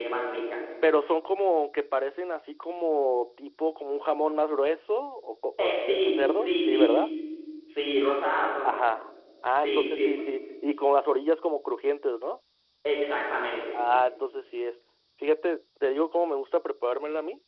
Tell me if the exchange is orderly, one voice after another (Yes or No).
No